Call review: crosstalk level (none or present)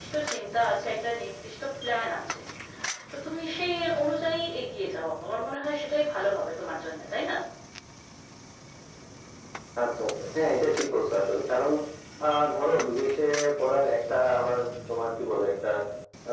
none